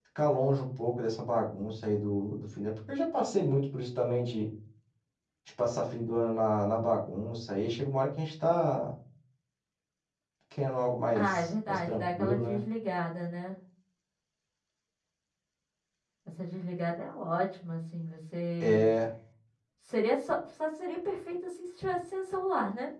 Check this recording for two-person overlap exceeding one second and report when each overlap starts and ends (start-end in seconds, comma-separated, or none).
11.2-12.6